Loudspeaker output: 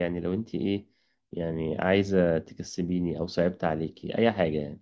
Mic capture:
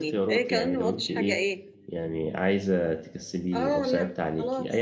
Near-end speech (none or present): present